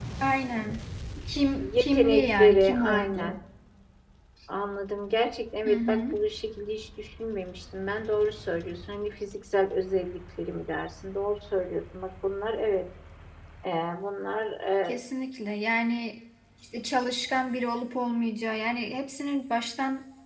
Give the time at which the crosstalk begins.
2 s

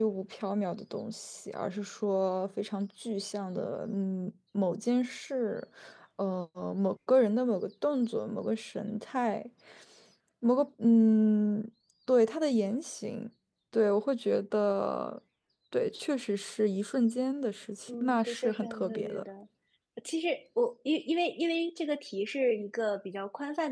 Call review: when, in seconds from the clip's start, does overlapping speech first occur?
18 s

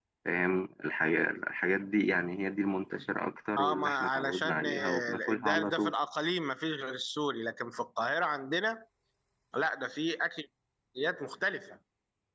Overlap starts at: 4 s

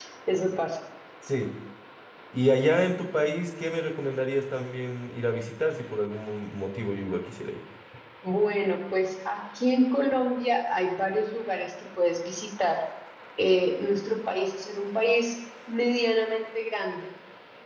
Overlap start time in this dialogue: none

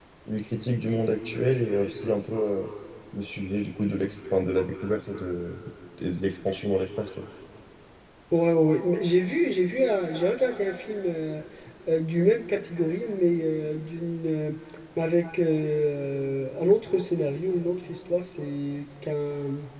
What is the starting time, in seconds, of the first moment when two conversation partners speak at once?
none

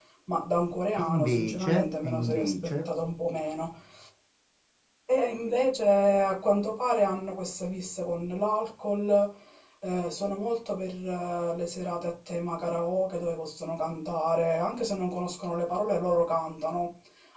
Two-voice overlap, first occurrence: 1 s

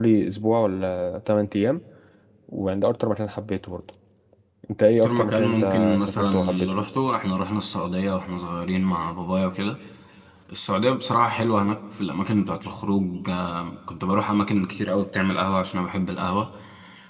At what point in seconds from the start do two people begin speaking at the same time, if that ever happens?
5 s

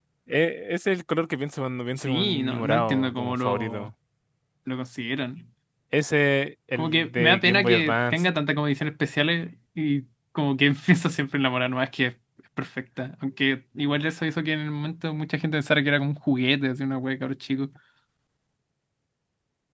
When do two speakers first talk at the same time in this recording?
2 s

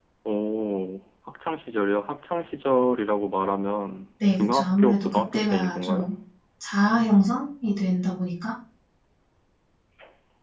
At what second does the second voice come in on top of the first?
4 s

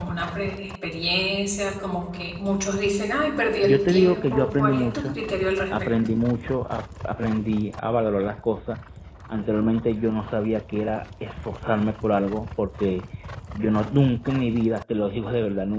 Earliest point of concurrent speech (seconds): 4 s

